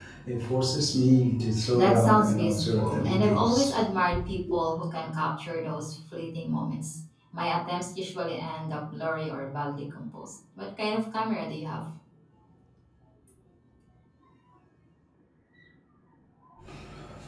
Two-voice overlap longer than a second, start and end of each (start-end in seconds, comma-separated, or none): 1.7-3.7